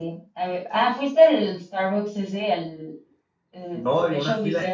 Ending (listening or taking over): taking over